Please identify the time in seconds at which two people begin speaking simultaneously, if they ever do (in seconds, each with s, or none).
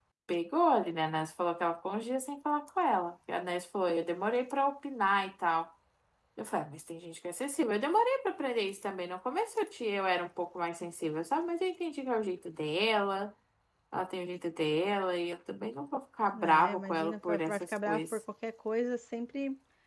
16.3 s